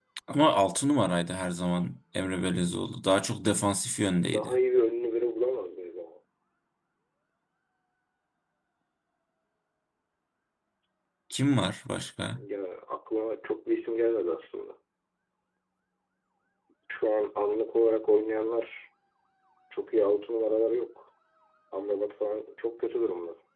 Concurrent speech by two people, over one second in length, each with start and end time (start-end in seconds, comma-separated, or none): none